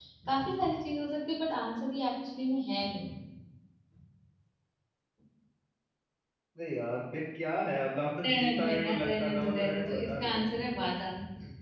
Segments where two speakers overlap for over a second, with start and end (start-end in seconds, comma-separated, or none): 8.2-10.5